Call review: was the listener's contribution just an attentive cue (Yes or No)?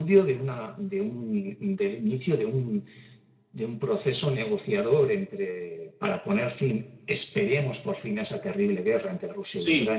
No